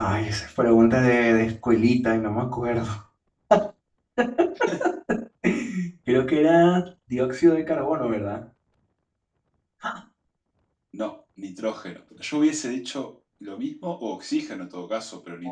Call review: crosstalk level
none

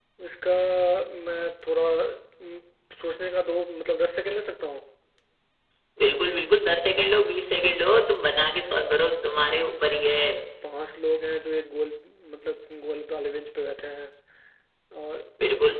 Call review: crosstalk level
none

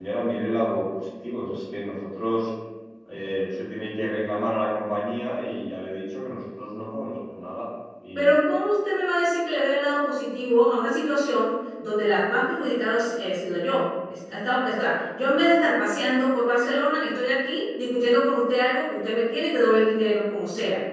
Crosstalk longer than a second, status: none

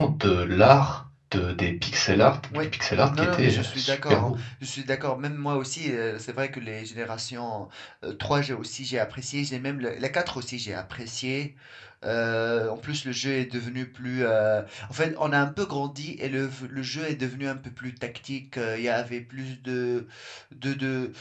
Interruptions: present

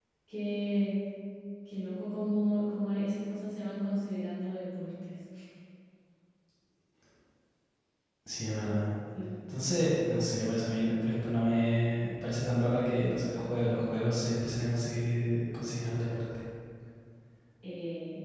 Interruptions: none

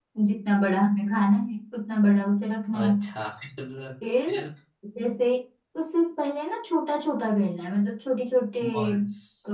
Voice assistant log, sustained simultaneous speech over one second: none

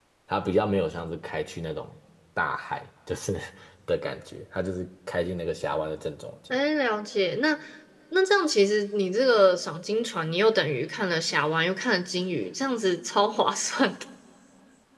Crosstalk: none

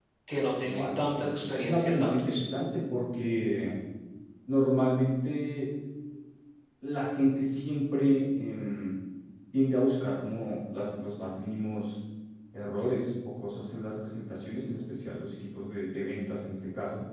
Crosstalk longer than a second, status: present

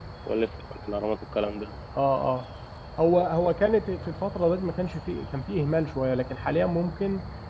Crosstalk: none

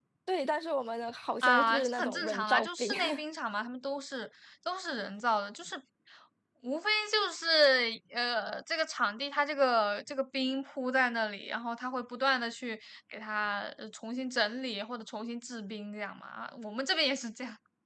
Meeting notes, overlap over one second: present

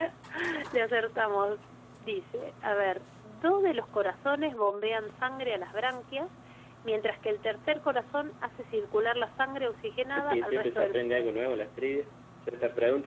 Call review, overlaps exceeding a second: present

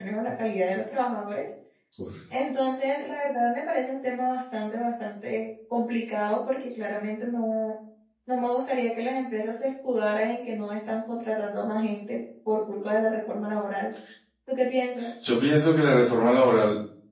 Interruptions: none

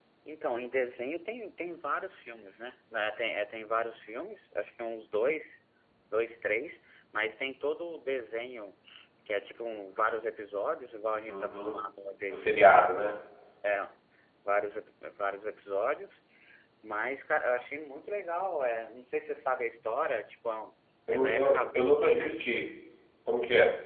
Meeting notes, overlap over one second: present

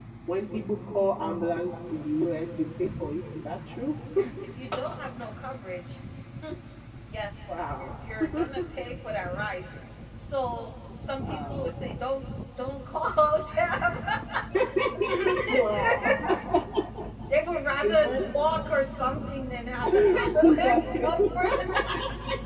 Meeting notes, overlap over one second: present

